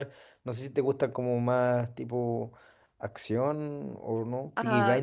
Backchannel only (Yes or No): No